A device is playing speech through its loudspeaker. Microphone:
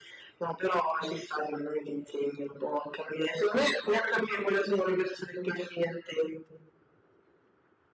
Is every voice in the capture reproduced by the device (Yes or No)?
Yes